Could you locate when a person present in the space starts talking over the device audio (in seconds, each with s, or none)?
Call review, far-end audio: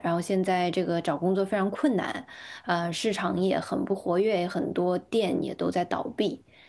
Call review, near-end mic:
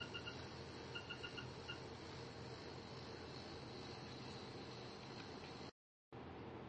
none